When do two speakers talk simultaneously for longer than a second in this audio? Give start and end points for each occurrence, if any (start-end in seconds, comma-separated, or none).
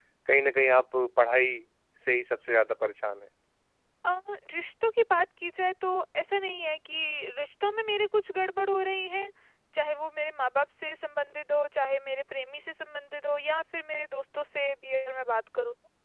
none